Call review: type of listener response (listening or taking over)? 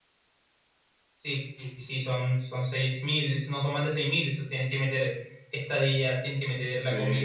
listening